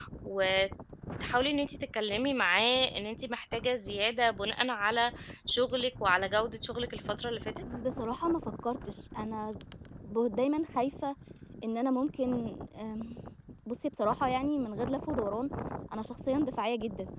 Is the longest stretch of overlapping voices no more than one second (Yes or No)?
Yes